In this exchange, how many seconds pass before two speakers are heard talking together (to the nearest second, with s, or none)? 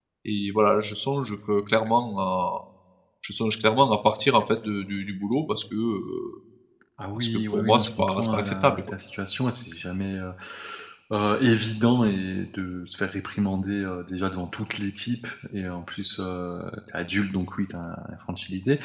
7 s